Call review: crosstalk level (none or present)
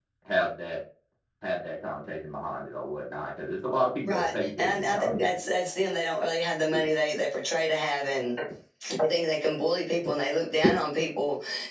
present